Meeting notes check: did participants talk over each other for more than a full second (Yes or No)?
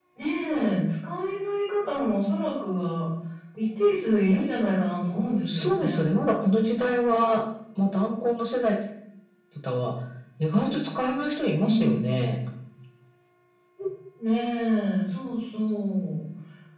No